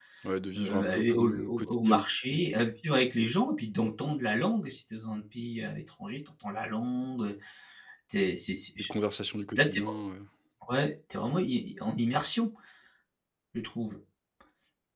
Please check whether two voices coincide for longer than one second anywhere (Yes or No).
Yes